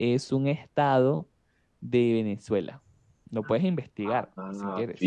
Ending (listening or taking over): taking over